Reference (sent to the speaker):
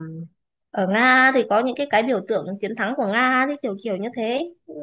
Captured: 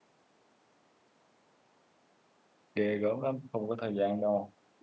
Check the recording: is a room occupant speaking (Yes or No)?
Yes